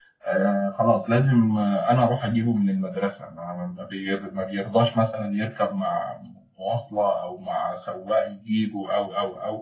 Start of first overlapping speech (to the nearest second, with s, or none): none